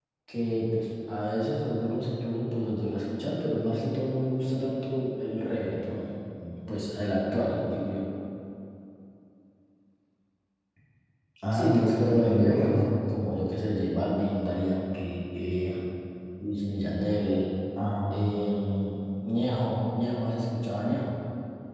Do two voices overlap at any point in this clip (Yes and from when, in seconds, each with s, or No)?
Yes, from 11.5 s